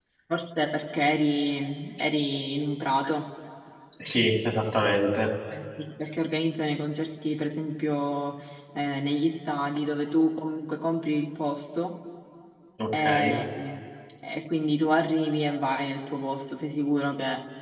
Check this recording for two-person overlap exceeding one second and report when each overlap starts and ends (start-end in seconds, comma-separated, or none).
none